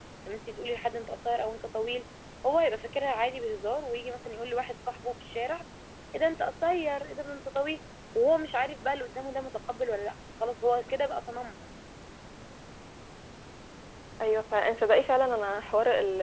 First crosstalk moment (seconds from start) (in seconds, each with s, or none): none